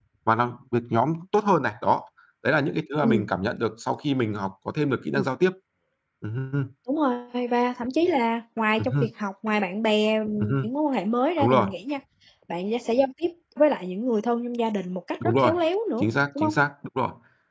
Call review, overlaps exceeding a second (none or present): none